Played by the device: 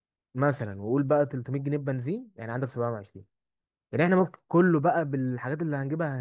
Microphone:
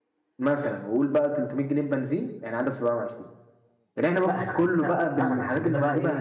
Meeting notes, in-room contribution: present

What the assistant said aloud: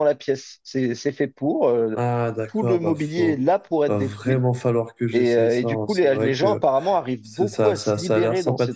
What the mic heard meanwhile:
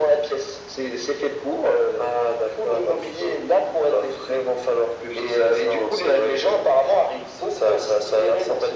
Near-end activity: none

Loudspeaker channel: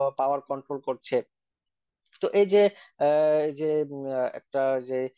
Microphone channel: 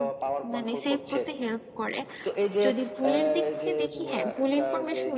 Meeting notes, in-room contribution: present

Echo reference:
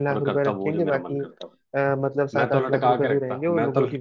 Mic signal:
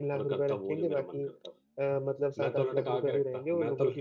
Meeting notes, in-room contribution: none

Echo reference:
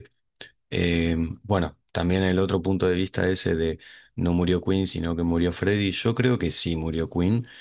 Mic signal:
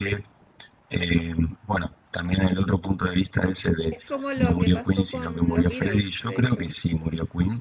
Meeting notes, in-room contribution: present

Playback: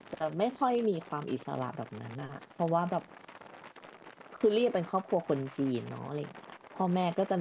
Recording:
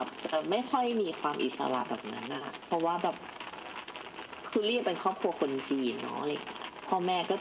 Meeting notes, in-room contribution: none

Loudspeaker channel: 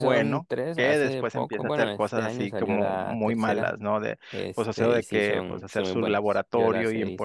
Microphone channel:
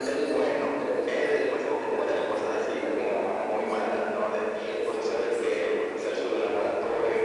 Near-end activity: none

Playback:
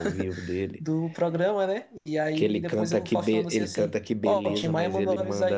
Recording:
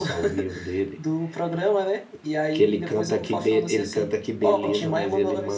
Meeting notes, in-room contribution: none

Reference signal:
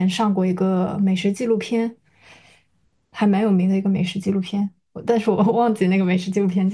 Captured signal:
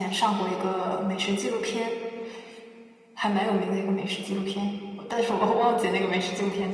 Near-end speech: none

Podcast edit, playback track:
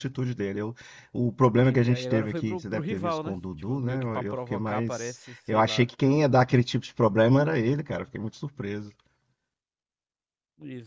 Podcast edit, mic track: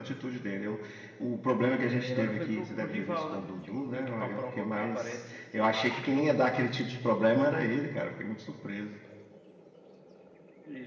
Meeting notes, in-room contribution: none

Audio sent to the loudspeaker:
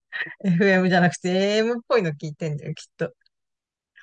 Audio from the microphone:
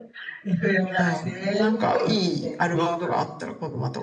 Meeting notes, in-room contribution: present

